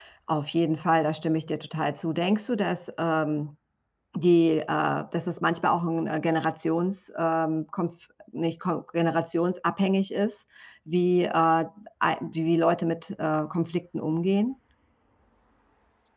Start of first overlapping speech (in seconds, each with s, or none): none